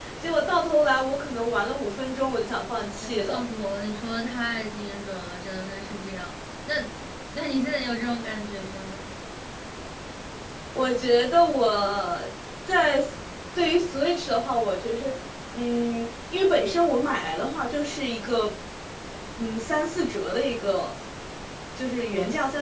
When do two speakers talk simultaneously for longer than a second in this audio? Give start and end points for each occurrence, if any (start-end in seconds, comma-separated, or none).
none